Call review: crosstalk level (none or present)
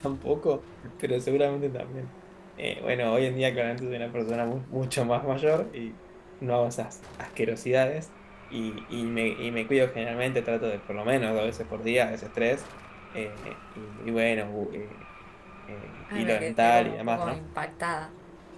present